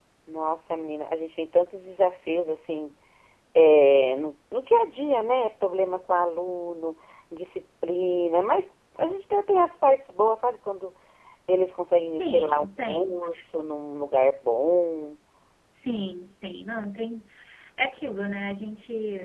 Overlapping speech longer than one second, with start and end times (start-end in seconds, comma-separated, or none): 12.0-13.4